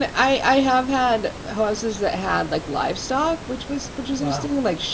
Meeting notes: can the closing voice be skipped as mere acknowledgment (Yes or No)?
Yes